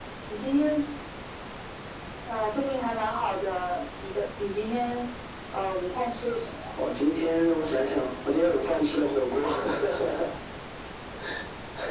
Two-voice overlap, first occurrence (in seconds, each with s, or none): none